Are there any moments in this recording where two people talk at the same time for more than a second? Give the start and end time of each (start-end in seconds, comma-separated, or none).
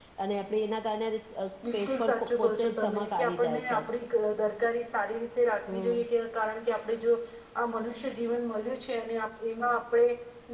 1.7-3.8